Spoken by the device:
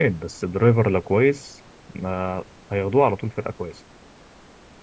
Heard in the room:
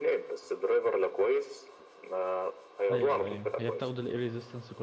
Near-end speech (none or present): present